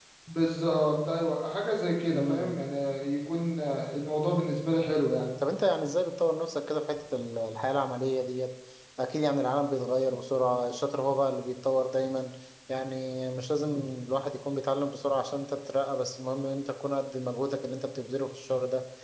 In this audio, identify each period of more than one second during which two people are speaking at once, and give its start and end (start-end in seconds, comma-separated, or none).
none